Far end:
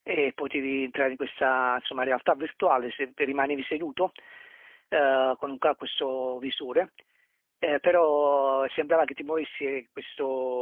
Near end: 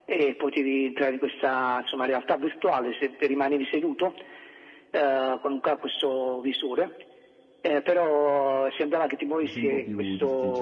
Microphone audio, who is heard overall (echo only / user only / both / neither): both